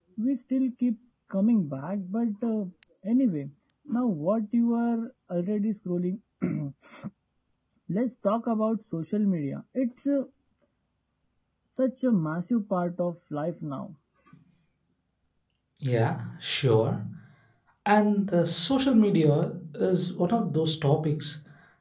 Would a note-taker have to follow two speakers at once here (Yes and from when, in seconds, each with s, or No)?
No